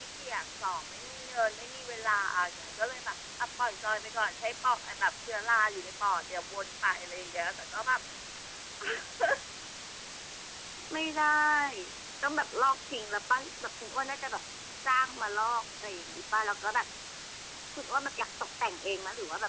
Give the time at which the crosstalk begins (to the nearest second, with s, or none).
none